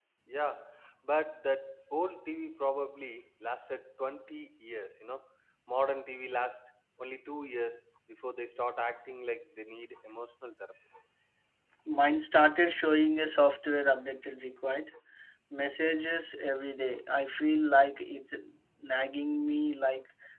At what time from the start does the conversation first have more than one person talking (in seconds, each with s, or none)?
none